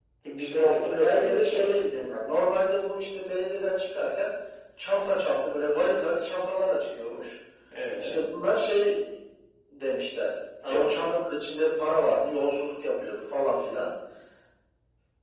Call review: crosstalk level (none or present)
present